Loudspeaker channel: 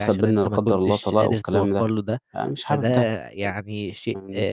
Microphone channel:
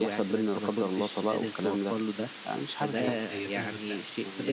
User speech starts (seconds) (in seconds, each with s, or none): 2.9 s